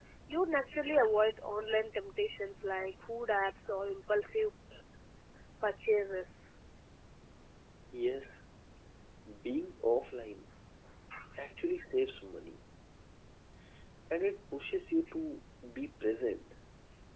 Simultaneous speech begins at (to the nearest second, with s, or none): none